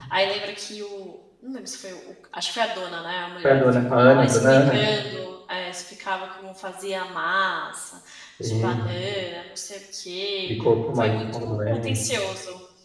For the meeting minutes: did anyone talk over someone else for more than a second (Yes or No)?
Yes